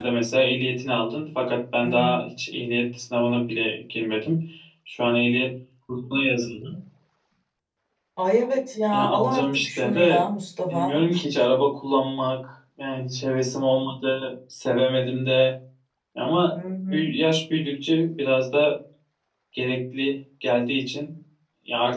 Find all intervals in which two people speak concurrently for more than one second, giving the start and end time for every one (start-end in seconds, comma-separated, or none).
8.9-10.2